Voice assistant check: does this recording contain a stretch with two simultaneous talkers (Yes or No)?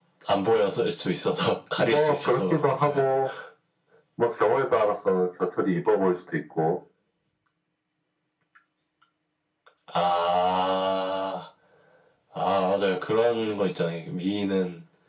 Yes